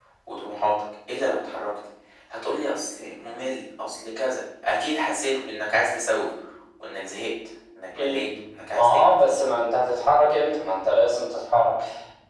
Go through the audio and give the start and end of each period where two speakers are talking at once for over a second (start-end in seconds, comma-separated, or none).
none